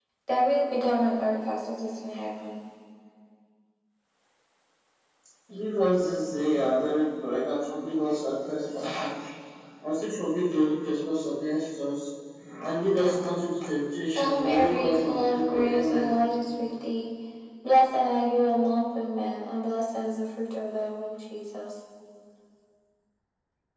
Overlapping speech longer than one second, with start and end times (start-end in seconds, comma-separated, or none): 14.2-16.2